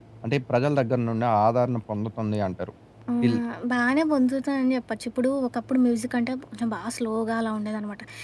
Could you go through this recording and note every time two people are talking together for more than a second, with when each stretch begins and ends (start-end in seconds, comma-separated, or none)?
none